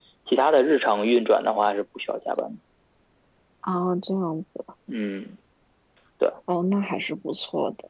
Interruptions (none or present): none